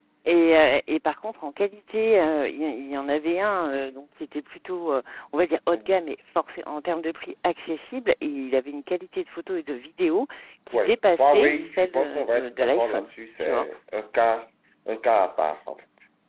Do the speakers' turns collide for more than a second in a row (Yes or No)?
Yes